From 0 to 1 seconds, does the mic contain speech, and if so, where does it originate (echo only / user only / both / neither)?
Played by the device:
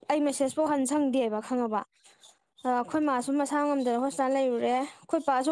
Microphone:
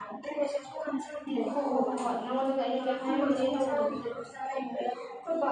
echo only